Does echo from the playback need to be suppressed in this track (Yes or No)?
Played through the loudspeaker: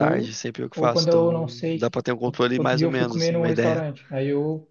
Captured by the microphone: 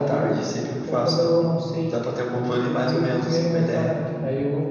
Yes